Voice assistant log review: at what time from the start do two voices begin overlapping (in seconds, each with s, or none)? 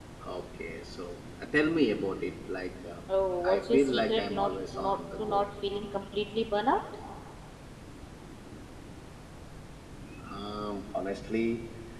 3.4 s